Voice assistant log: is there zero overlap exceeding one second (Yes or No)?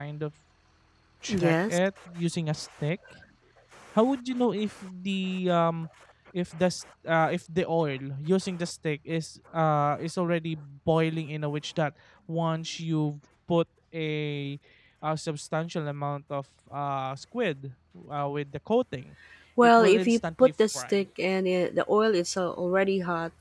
No